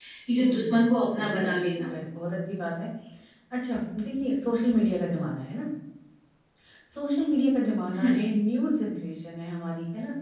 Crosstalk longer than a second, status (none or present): present